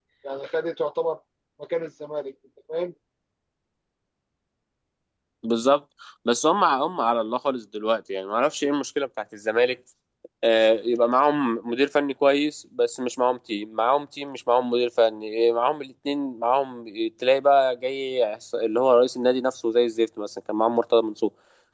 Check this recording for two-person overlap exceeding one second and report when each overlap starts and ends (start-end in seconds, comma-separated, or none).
none